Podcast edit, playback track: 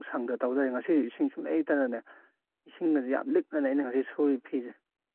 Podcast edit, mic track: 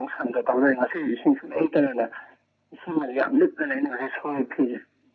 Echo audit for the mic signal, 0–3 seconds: echo only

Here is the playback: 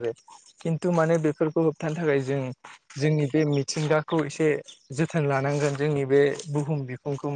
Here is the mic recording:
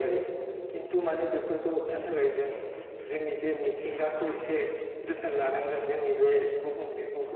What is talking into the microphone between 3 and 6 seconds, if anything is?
echo only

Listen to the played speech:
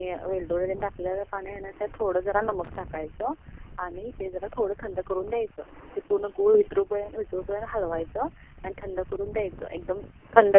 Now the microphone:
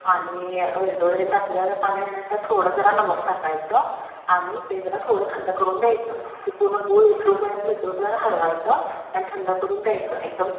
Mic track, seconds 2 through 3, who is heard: echo only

